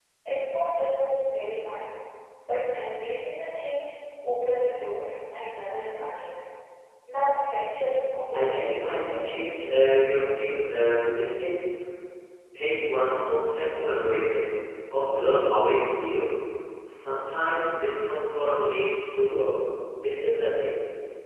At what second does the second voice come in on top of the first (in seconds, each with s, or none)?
8.3 s